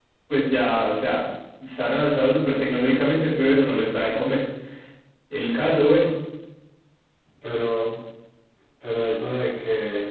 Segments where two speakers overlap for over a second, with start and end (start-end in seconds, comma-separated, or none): none